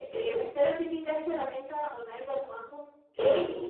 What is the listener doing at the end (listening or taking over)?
listening